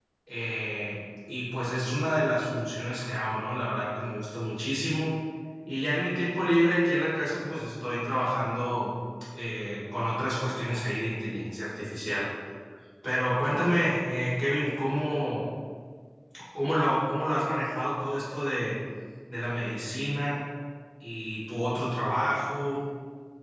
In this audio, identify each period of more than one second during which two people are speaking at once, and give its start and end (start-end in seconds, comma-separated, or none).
none